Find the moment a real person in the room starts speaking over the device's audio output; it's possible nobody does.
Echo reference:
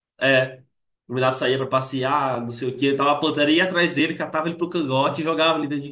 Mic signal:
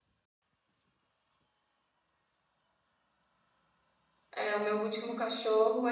4.3 s

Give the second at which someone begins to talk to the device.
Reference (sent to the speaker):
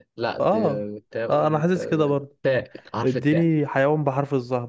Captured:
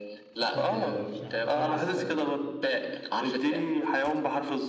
0.4 s

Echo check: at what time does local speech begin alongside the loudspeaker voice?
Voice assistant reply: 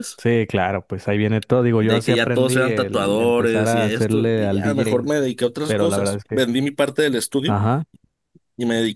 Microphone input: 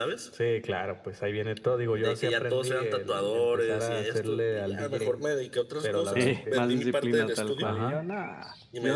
6.1 s

